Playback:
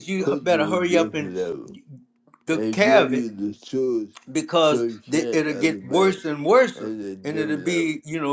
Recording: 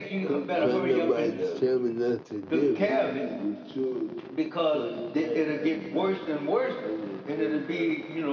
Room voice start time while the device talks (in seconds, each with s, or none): 0.6 s